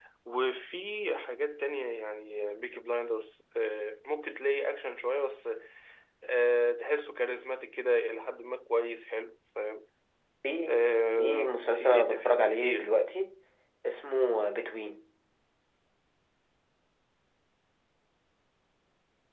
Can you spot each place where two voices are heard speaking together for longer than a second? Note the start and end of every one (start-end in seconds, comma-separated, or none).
11.2-12.9